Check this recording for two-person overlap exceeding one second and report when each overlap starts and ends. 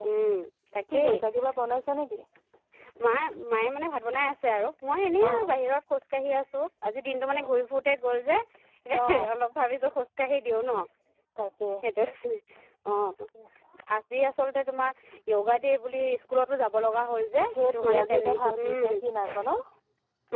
17.5-18.9

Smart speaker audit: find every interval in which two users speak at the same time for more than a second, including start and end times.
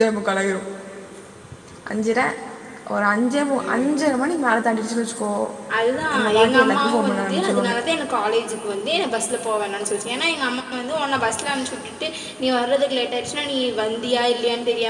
6.2-7.7

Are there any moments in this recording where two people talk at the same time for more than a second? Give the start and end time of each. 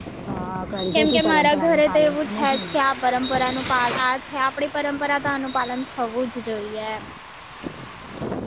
0.9-2.8

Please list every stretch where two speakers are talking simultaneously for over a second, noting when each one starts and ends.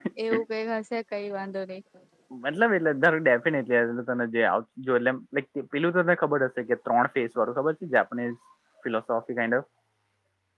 none

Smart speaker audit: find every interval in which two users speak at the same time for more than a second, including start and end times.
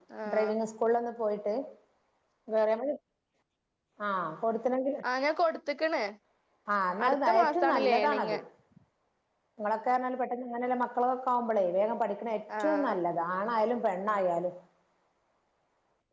7.1-8.3

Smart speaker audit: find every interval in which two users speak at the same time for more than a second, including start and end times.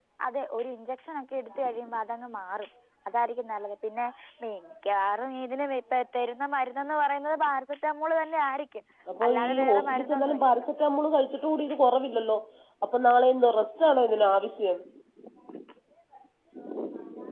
9.3-10.7

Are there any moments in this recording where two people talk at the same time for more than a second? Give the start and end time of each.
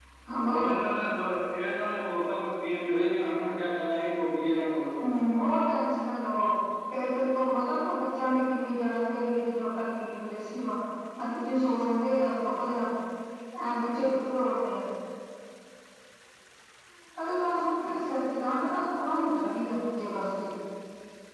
none

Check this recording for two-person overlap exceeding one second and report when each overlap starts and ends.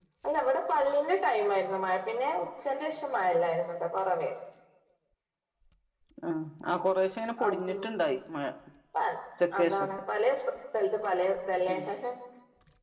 none

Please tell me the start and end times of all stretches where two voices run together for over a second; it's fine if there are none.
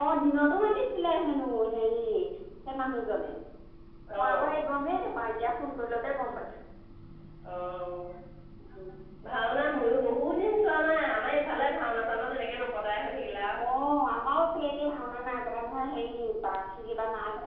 none

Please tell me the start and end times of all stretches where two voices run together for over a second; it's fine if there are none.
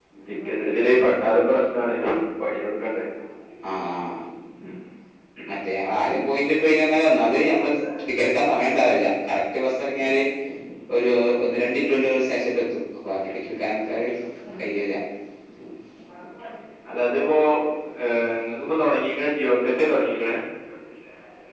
none

